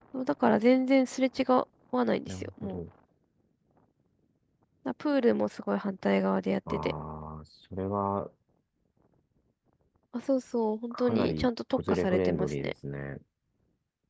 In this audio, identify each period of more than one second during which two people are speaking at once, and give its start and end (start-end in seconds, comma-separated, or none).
10.9-12.7